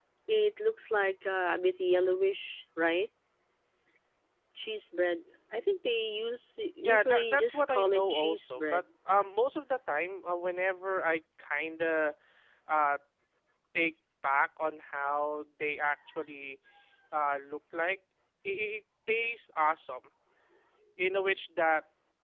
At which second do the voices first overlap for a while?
7 s

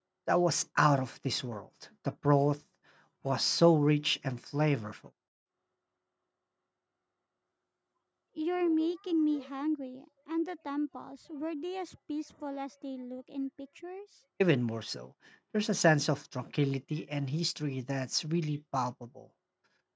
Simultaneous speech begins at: none

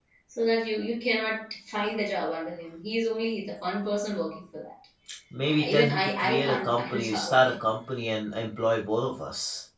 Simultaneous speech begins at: 6 s

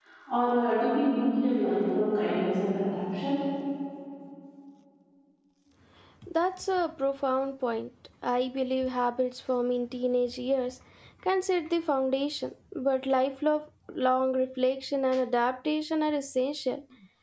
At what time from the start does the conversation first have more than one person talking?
none

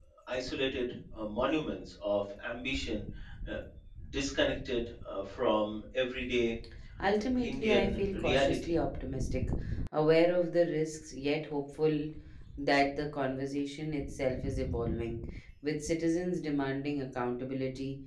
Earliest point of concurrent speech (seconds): 7 s

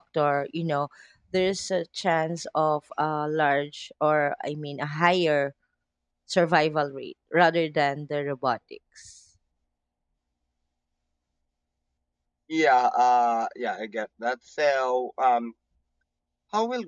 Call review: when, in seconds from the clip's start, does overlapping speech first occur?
none

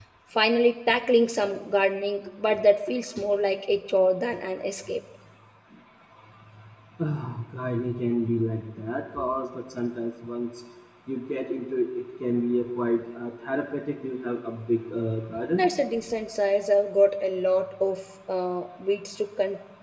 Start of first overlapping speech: none

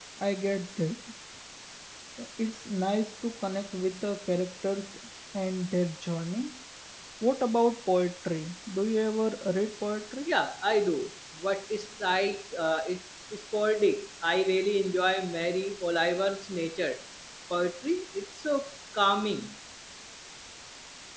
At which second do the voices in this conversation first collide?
none

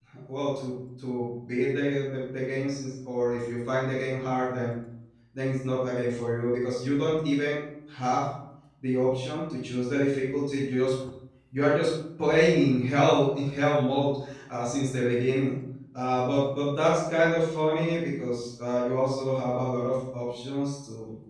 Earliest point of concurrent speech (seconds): none

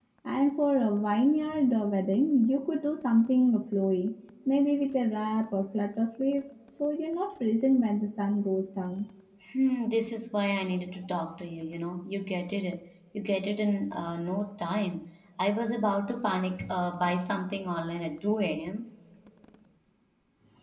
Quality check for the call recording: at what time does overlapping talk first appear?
none

